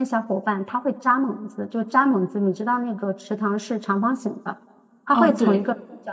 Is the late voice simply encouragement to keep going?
Yes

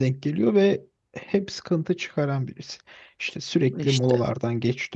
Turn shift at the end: No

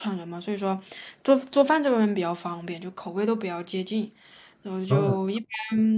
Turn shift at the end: No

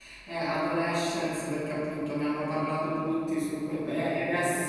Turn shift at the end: No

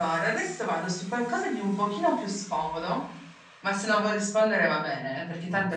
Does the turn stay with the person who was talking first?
Yes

